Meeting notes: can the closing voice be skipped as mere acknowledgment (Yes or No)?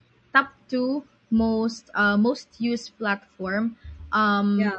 Yes